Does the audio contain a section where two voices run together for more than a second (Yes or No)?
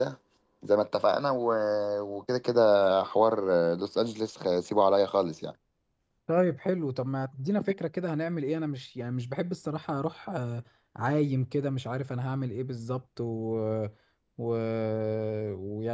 No